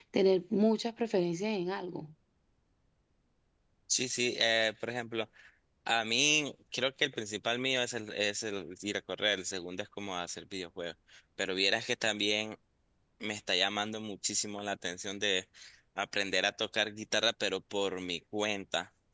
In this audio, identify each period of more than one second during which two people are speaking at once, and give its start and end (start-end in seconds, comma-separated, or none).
none